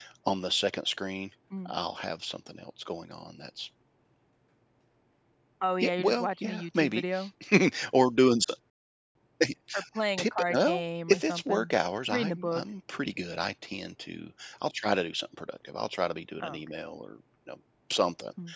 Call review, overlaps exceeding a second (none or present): present